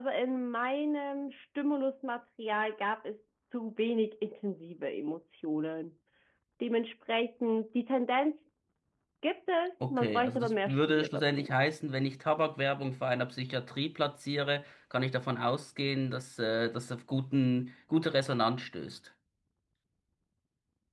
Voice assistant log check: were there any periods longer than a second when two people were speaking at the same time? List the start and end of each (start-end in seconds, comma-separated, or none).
9.9-11.5